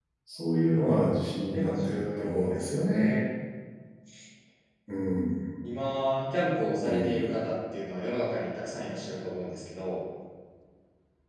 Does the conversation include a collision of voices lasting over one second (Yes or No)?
Yes